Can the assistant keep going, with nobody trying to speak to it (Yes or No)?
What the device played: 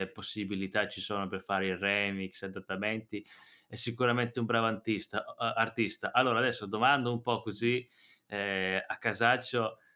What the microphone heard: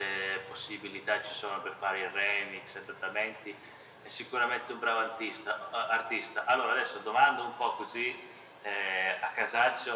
Yes